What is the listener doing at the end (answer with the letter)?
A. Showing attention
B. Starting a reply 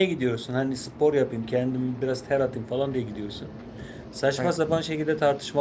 A